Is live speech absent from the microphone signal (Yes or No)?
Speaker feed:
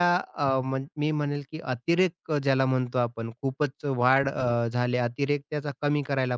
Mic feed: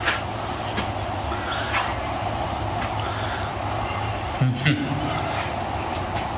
No